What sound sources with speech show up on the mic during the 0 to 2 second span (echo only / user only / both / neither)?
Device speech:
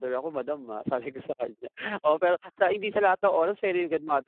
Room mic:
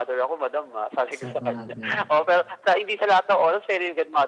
both